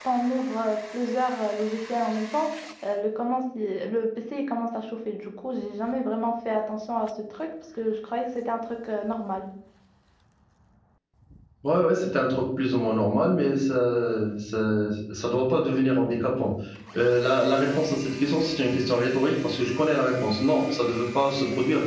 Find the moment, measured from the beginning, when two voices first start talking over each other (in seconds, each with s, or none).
none